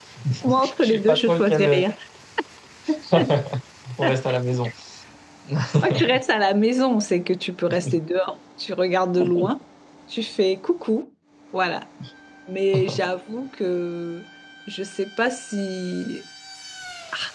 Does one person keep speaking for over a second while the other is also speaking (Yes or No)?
Yes